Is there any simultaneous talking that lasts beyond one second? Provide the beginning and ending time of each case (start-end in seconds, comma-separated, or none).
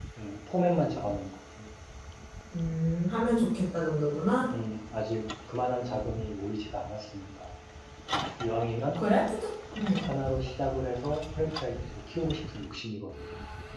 none